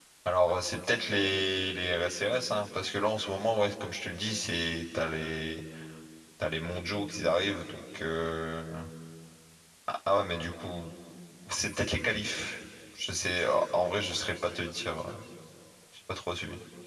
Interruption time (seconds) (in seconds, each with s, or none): none